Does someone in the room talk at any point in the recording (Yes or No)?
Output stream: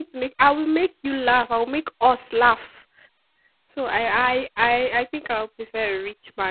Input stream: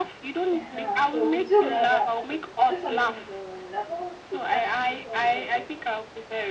Yes